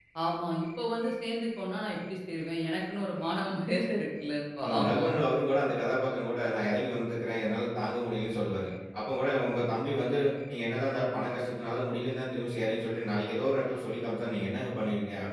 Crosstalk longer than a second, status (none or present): none